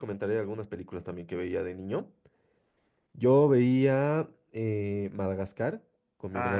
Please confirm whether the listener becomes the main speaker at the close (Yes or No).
Yes